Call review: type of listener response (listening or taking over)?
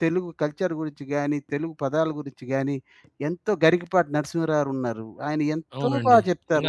taking over